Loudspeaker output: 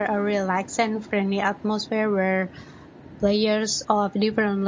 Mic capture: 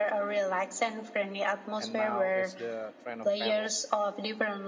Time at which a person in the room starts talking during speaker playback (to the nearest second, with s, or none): 2 s